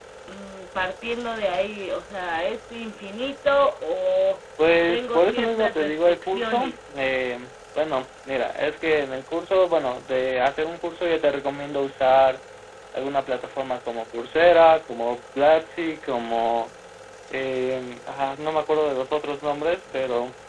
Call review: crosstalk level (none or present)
present